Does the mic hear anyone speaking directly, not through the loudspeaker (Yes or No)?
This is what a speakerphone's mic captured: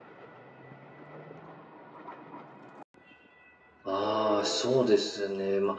Yes